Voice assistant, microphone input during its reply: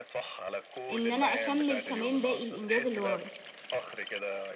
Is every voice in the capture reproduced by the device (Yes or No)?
No